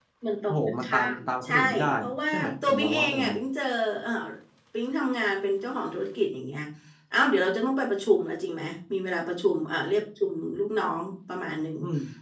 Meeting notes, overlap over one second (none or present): present